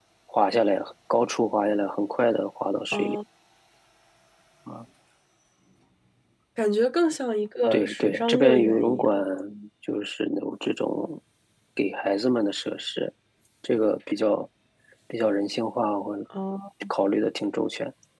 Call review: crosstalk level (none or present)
present